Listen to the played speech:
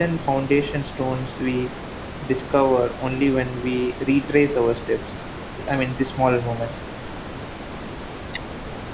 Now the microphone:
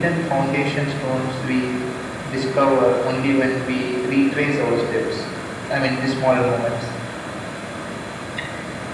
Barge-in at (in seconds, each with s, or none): none